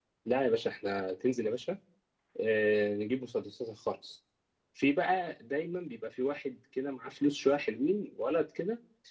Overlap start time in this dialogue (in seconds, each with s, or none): none